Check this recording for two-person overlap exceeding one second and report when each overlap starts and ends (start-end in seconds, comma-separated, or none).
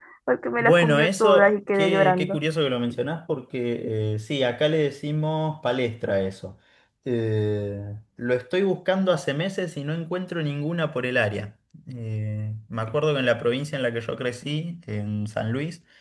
0.6-2.4